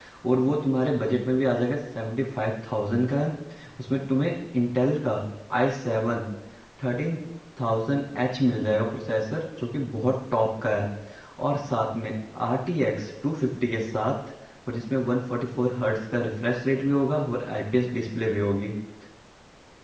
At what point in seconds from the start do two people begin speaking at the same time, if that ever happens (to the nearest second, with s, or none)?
none